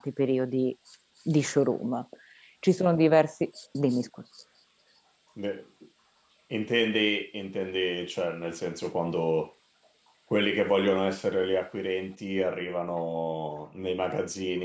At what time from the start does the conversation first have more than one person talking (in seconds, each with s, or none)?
none